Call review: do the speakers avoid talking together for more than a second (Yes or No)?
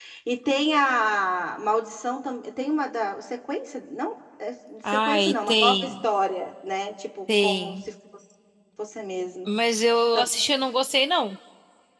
No